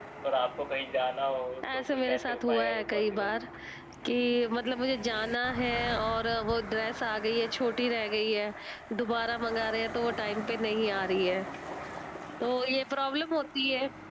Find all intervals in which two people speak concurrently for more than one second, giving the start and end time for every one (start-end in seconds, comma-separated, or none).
1.7-3.3